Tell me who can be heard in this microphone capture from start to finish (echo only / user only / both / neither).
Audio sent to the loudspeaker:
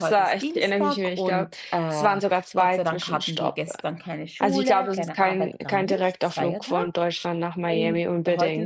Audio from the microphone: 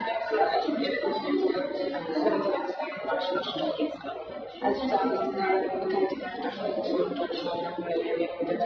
echo only